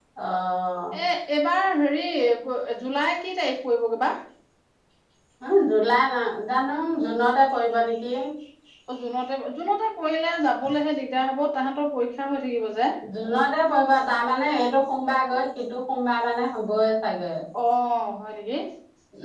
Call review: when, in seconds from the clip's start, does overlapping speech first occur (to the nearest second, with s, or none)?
none